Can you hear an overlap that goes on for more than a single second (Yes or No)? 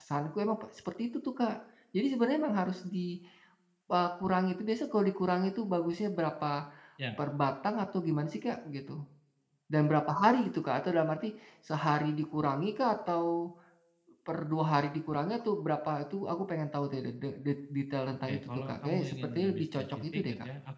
Yes